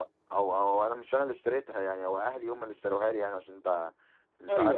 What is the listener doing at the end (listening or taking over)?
listening